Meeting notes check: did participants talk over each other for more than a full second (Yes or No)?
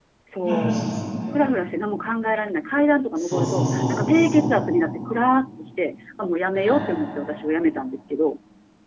Yes